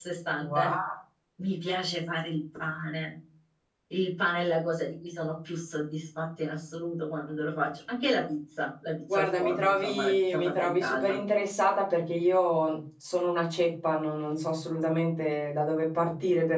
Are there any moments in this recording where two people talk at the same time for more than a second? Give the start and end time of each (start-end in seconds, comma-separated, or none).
9.1-11.2